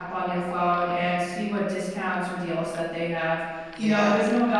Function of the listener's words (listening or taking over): listening